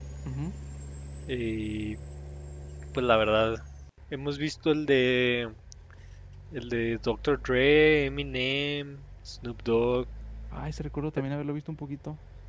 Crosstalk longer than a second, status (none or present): none